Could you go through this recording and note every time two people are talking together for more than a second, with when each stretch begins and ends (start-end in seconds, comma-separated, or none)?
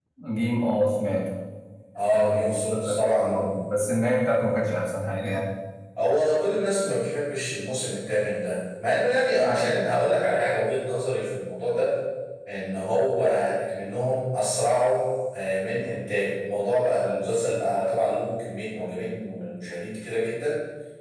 2.1-3.5